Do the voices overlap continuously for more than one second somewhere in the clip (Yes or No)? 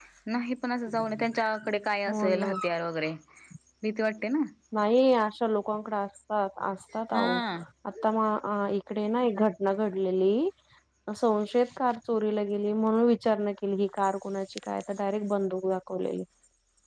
No